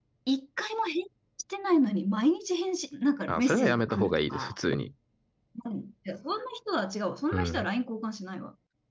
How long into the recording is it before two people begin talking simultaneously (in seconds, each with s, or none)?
3.3 s